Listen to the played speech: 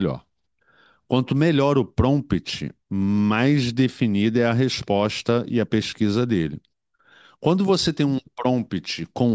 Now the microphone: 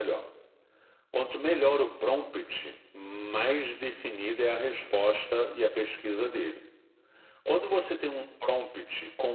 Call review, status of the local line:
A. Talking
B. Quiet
B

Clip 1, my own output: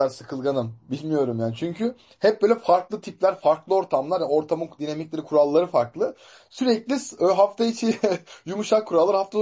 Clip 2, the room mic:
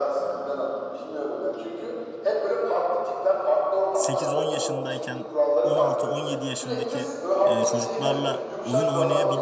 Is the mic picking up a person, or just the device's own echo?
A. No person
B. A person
B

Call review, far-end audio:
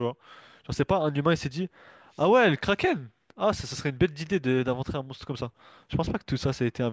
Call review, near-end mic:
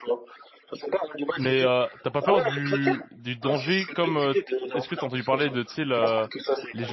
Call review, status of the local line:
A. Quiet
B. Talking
B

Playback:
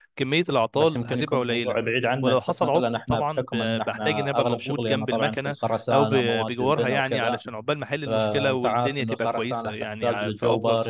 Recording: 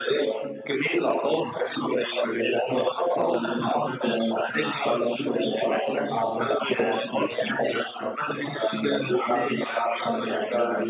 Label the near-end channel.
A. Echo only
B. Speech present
A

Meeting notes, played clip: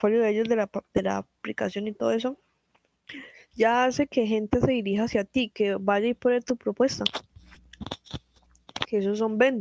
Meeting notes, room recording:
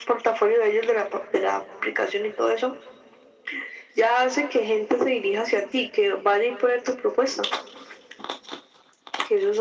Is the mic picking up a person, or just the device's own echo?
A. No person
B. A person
A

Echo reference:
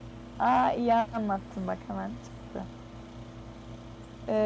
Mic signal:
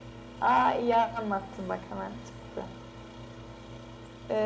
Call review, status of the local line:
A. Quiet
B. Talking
A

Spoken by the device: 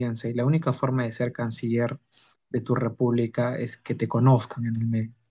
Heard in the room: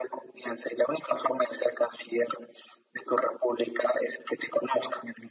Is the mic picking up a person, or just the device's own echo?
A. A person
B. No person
B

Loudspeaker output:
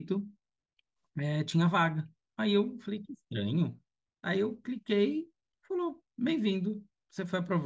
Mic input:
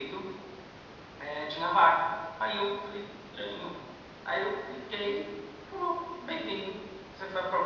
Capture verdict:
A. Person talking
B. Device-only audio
B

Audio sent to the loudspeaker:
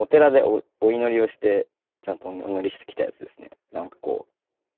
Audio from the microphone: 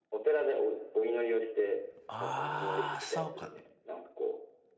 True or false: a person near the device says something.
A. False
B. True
B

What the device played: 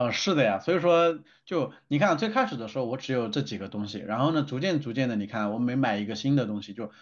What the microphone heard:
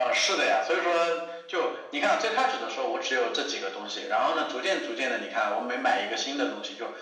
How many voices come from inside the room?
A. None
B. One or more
A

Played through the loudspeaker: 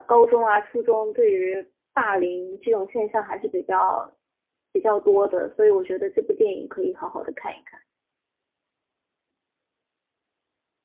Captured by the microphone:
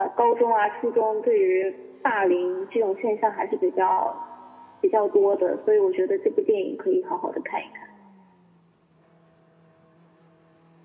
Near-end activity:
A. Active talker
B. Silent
B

